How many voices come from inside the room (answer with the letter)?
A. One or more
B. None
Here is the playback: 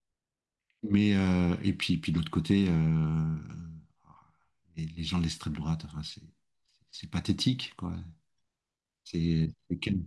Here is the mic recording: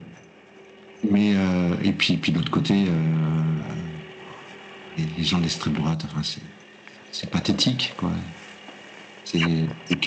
A